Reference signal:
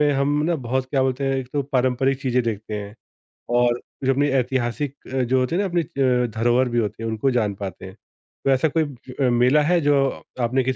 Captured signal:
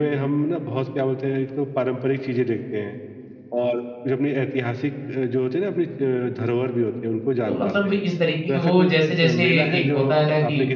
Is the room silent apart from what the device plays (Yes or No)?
No